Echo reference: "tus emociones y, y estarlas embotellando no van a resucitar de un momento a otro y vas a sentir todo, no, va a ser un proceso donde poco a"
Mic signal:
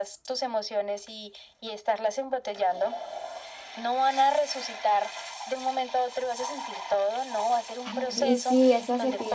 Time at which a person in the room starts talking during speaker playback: 8 s

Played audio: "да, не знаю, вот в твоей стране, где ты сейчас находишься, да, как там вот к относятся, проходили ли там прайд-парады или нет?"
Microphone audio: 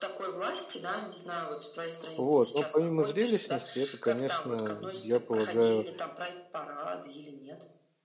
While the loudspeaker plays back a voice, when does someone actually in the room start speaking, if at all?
2 s

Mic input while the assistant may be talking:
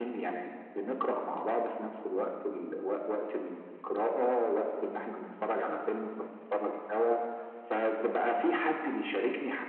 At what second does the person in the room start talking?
none

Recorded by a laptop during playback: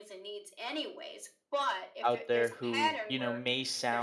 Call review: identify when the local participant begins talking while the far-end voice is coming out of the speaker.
2 s

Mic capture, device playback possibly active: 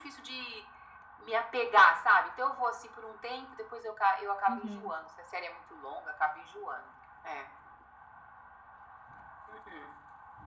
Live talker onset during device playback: 4 s

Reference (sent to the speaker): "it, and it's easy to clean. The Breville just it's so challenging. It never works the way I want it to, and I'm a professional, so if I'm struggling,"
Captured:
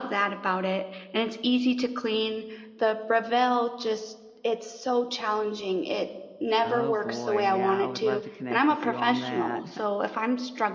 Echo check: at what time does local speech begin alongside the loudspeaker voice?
7 s

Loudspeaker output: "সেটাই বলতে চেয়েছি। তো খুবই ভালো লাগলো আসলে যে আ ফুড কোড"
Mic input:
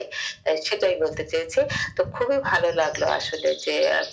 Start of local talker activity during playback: none

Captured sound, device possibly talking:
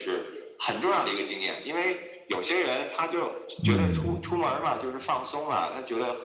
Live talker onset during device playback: 4 s

